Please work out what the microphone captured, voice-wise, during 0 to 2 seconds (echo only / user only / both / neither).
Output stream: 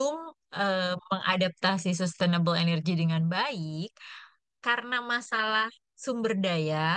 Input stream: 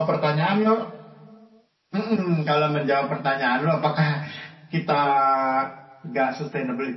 user only